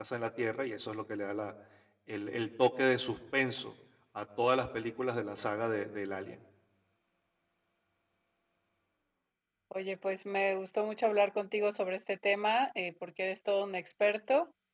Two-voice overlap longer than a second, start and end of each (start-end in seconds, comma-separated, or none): none